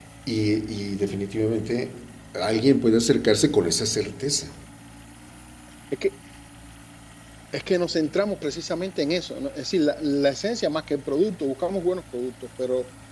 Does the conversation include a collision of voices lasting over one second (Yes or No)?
No